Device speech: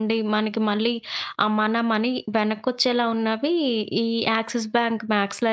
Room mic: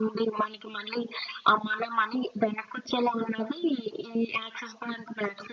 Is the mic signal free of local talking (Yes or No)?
Yes